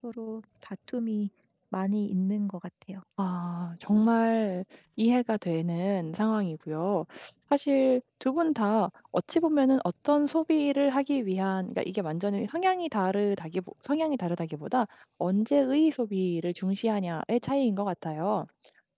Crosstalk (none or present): none